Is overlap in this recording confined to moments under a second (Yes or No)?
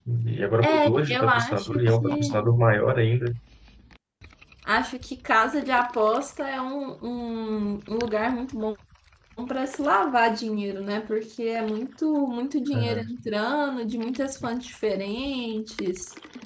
No